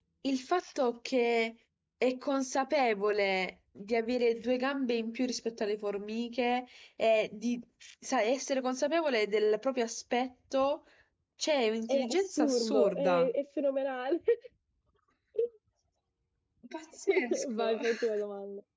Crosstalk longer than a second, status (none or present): present